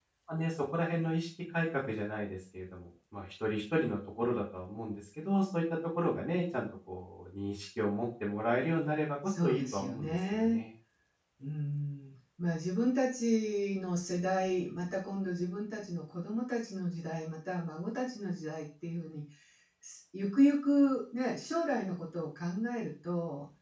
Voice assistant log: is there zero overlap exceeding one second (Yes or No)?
No